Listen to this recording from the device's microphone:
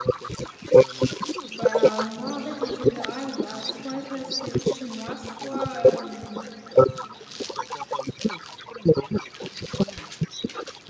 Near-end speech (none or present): present